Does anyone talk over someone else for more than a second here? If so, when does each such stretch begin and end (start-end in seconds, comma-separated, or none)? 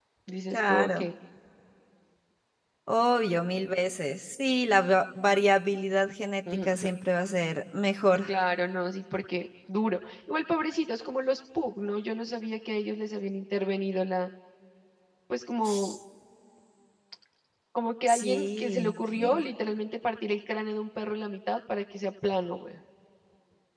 18.1-19.4